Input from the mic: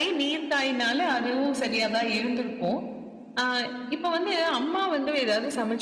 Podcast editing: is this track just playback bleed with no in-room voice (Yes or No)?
Yes